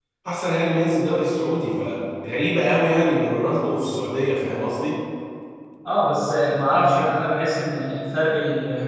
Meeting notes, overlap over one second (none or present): none